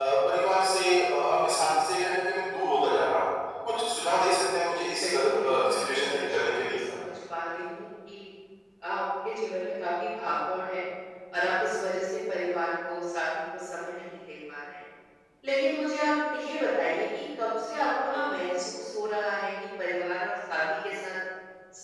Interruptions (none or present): present